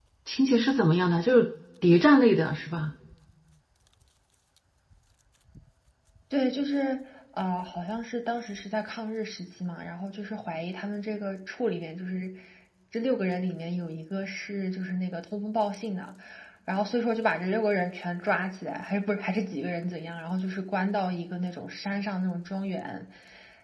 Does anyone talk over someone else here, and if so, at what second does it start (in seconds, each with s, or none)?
none